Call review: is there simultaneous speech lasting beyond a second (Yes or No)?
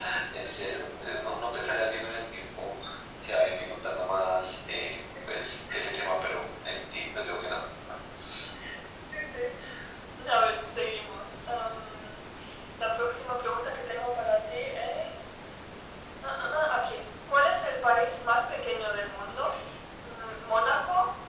No